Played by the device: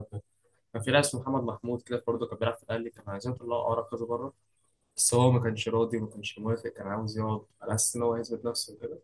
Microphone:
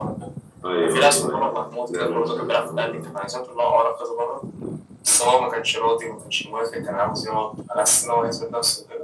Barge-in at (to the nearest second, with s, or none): 1 s